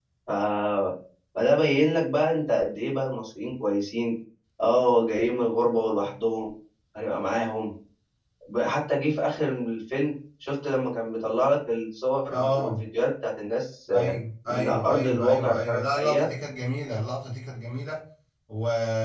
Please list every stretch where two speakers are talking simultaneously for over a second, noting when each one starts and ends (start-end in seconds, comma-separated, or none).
14.5-16.3